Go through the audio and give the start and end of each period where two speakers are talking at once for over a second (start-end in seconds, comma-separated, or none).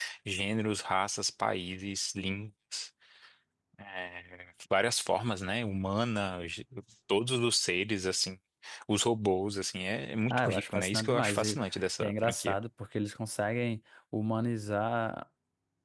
10.3-11.6